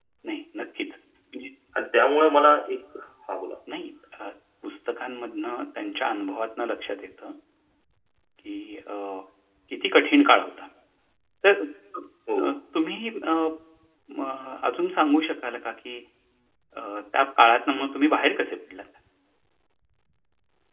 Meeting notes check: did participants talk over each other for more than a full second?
No

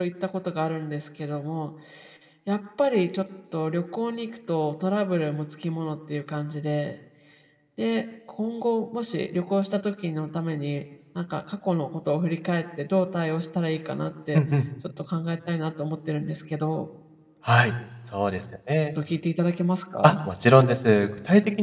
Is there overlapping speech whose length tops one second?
No

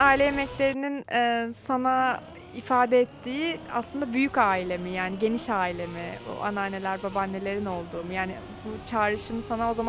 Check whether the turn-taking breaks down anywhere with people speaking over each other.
No

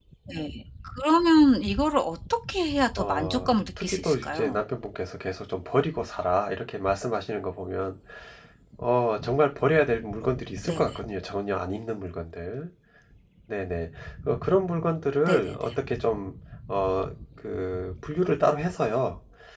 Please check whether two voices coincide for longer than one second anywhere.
Yes, from 3.0 s

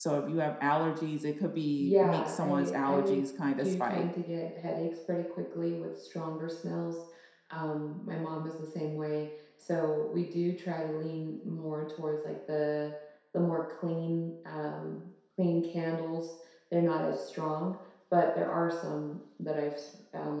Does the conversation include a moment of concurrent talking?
Yes, from 1.8 s

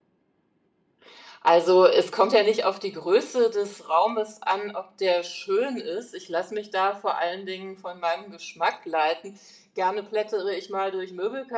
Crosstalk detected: No

